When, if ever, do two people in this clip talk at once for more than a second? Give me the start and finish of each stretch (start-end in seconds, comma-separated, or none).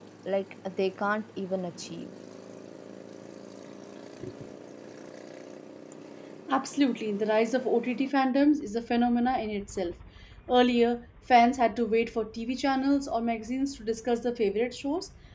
none